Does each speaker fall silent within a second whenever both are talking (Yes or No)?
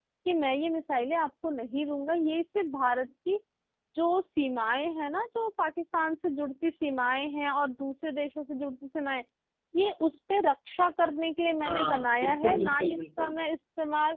No